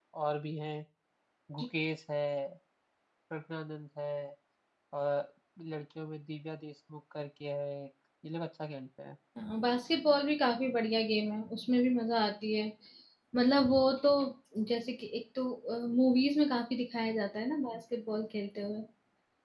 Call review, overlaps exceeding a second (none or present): none